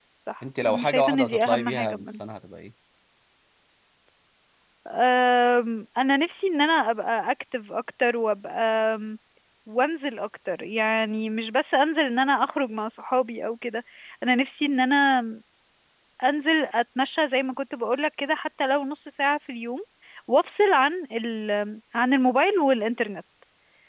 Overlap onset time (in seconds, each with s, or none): 0.7 s